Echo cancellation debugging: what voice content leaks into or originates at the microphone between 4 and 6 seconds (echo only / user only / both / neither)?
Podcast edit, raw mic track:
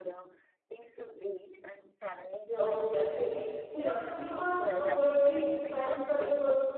both